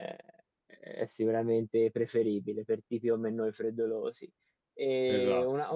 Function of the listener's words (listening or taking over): listening